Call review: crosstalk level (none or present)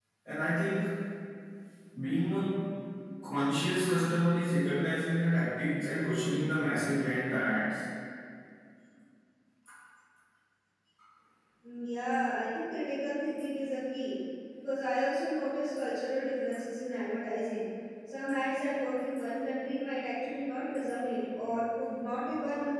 none